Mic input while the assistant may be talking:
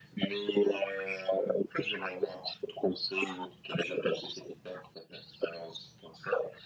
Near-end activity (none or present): none